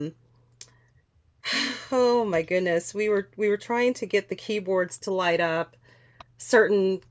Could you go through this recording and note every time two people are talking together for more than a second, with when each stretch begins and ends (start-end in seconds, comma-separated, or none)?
none